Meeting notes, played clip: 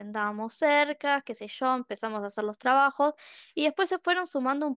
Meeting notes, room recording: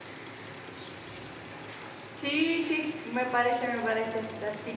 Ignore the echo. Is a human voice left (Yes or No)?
Yes